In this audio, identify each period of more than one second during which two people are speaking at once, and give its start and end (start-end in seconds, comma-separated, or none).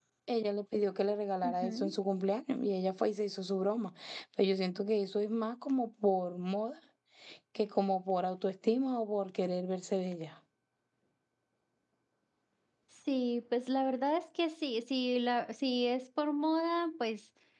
none